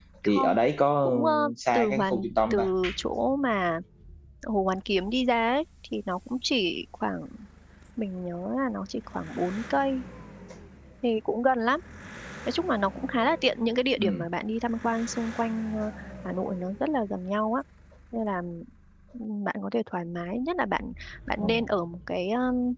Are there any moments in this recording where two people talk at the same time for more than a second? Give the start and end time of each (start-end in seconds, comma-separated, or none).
1.0-2.7